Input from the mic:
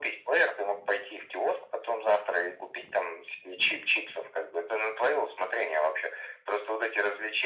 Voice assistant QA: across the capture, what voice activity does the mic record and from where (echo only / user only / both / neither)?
echo only